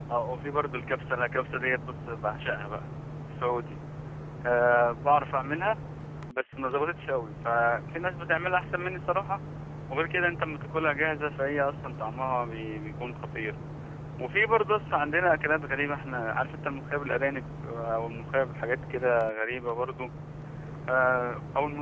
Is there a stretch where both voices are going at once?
No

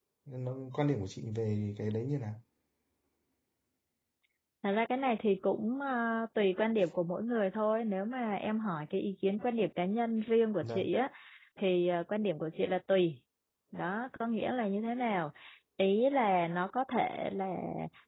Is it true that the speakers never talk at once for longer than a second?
Yes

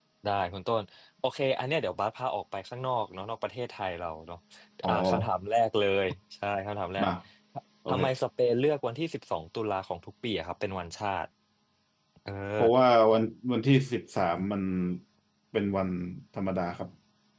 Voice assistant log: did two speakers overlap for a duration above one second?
No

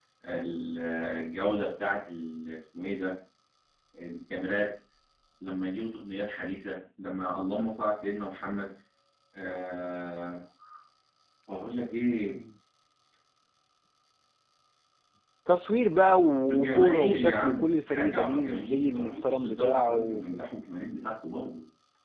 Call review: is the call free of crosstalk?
No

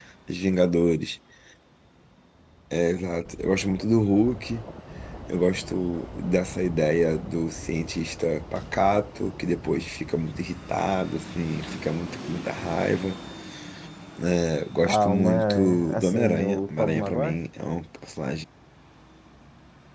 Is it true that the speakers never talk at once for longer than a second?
No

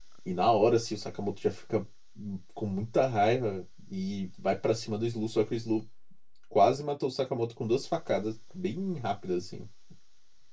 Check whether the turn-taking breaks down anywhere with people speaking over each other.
No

